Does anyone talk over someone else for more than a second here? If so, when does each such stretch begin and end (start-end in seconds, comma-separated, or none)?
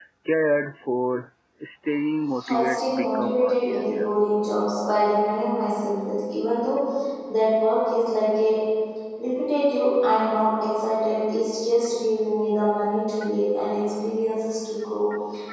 2.5-4.1